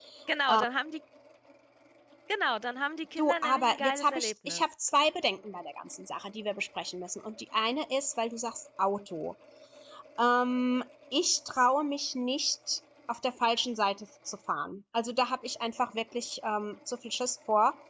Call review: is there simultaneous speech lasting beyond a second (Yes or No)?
Yes